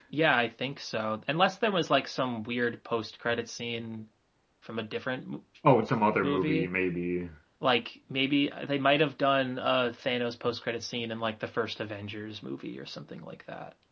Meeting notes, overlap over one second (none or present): none